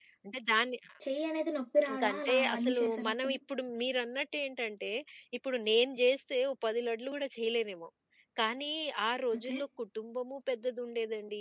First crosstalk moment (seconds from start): 1.9 s

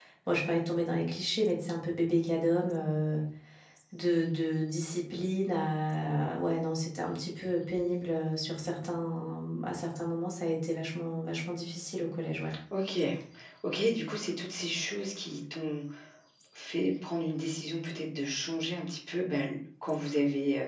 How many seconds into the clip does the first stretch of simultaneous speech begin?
none

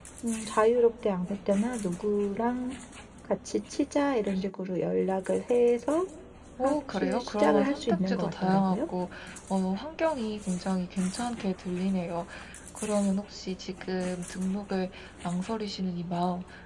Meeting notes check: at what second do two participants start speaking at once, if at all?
6.6 s

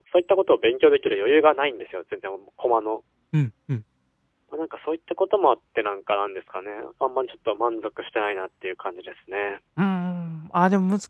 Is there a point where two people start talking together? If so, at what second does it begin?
none

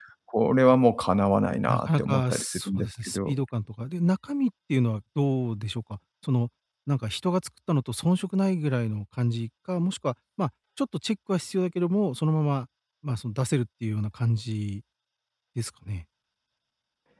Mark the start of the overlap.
1.7 s

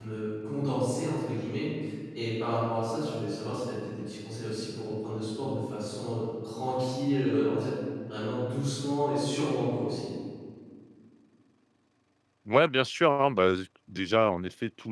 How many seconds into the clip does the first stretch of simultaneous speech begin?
none

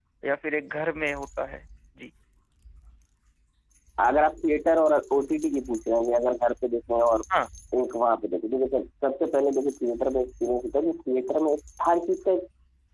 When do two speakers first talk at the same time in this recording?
none

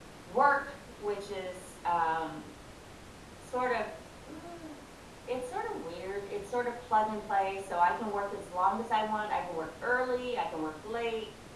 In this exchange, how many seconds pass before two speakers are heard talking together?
none

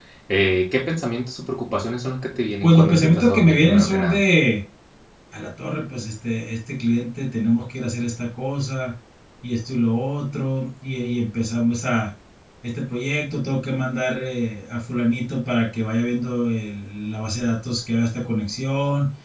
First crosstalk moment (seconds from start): 2.6 s

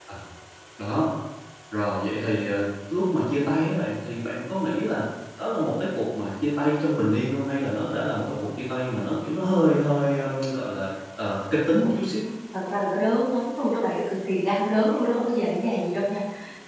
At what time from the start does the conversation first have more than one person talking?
none

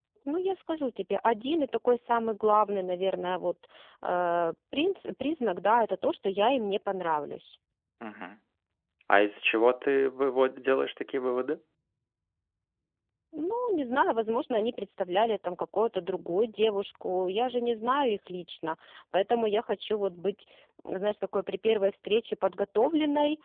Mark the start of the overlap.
none

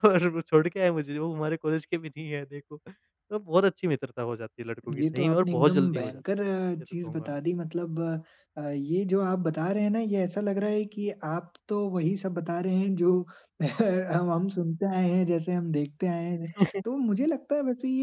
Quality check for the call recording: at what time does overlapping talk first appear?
4.9 s

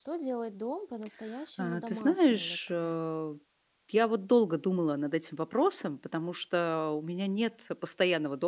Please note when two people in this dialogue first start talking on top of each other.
1.6 s

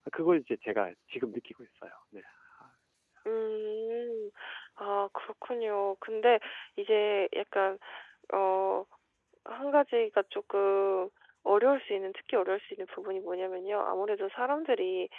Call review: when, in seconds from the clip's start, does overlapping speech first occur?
none

